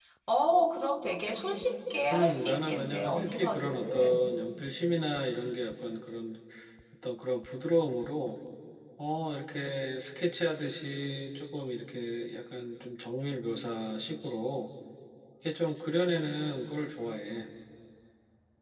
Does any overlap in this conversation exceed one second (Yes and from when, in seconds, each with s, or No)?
Yes, from 2.1 s